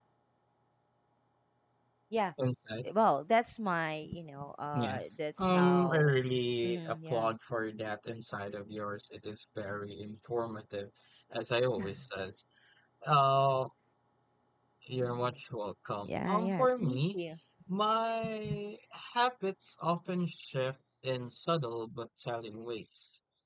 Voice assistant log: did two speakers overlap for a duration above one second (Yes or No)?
Yes